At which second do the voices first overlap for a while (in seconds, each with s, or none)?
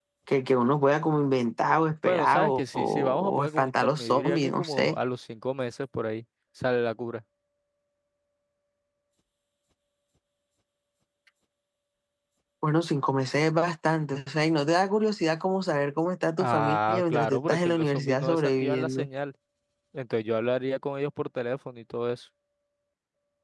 2.1 s